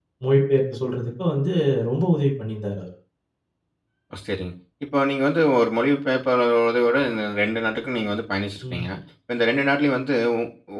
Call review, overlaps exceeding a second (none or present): none